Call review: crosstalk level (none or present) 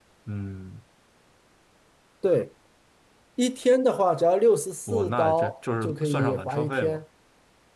present